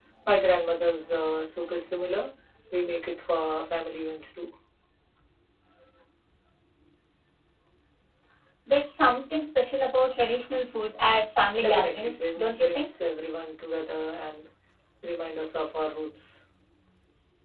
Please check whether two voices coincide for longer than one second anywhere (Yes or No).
Yes